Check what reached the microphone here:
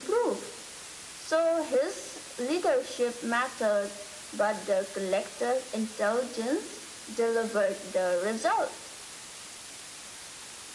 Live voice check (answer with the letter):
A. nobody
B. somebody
A